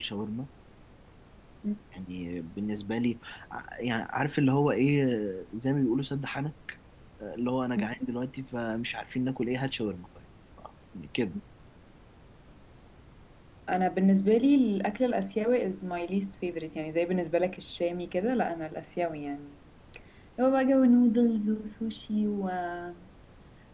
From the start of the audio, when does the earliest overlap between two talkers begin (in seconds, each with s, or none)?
none